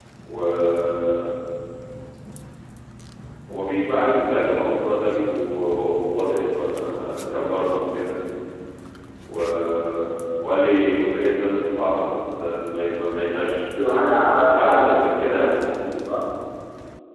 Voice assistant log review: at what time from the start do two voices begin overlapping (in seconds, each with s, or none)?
14.1 s